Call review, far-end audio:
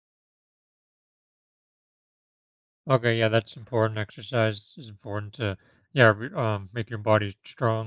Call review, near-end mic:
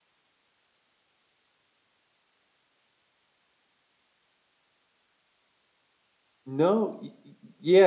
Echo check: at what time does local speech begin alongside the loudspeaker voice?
6.4 s

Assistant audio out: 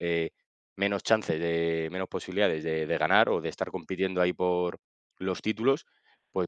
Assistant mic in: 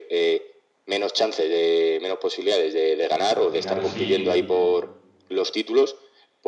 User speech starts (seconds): 3.3 s

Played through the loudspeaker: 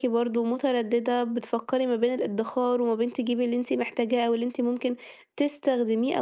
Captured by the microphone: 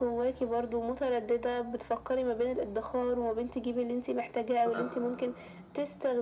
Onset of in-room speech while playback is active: 4.5 s

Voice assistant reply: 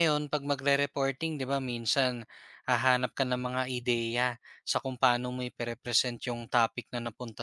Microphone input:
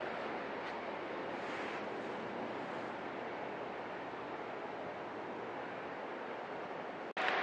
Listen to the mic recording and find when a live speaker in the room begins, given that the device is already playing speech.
none

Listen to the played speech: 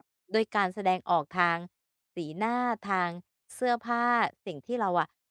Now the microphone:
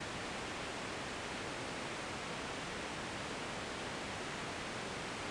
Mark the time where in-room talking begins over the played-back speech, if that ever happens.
none

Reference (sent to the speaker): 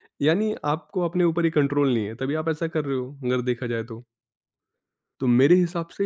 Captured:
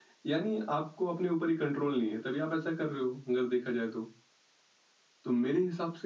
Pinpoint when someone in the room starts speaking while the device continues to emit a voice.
none

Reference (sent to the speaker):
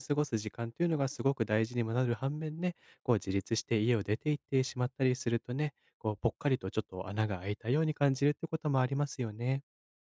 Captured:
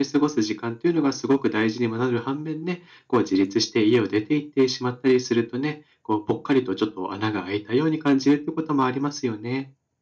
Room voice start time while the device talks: none

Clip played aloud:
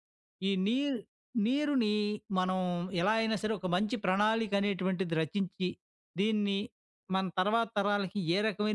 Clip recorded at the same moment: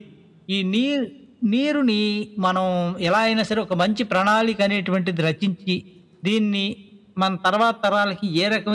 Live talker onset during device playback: none

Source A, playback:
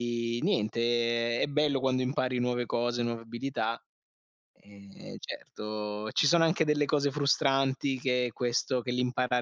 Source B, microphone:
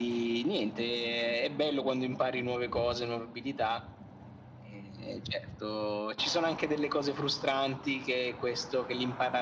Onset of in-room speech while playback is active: none

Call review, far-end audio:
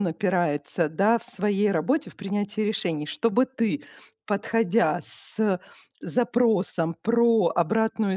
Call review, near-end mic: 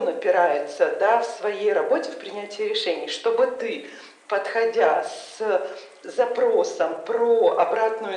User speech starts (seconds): none

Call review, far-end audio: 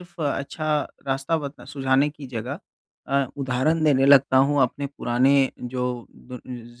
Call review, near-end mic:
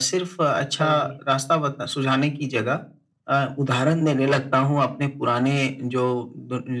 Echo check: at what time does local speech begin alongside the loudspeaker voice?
0.8 s

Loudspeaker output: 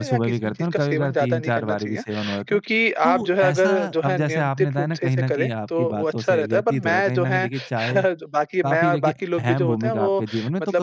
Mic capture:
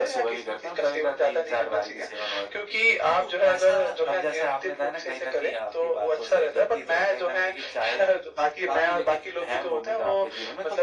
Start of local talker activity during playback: none

